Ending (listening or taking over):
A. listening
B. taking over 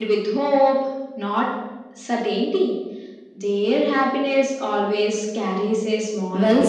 B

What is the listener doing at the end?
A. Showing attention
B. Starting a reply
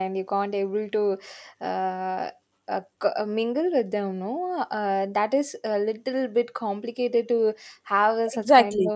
B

